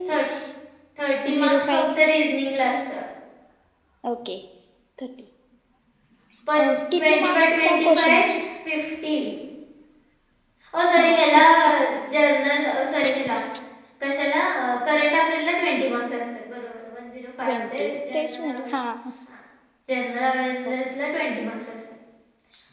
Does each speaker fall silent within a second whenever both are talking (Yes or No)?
No